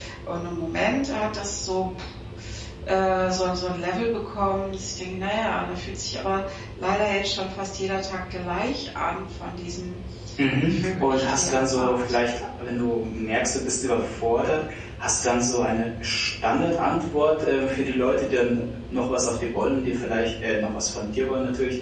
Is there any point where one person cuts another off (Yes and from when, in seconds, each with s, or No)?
Yes, from 10.6 s